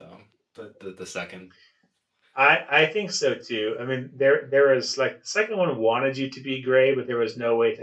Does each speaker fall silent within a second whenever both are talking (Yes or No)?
Yes